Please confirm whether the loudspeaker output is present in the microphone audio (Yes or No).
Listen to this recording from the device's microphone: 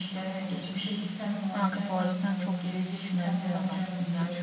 Yes